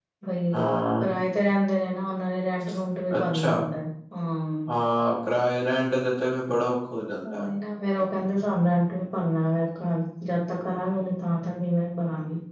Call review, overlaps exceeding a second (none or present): none